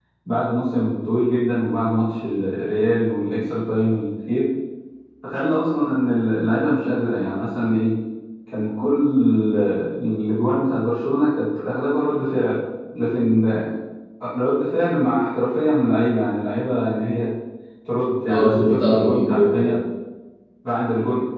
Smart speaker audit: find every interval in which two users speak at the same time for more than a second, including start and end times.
18.3-19.8

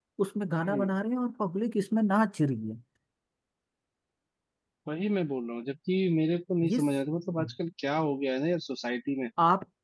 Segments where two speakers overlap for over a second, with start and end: none

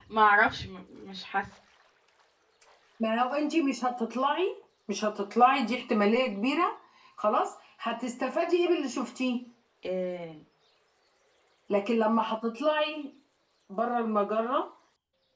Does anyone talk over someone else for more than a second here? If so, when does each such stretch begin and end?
none

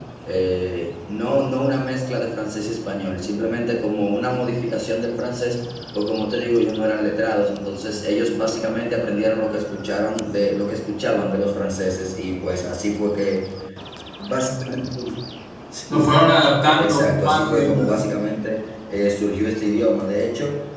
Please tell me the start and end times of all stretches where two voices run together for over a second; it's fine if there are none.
16.8-18.0

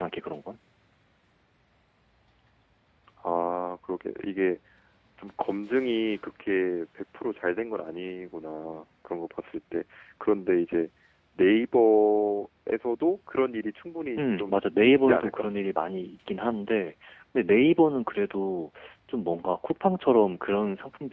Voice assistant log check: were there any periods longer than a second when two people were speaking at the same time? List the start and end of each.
14.2-15.4

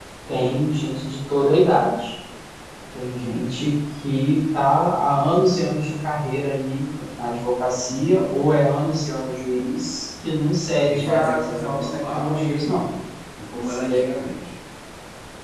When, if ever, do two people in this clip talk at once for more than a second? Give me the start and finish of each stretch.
10.9-12.9

